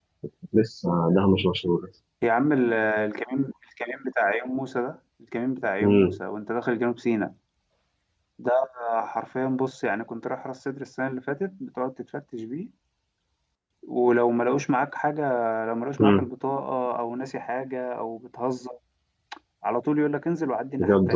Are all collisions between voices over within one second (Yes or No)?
Yes